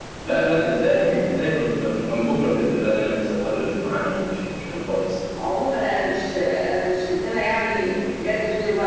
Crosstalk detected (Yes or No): No